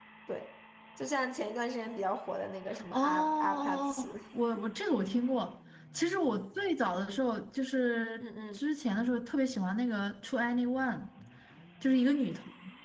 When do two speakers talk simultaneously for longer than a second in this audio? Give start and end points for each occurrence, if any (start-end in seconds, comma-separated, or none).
2.9-4.1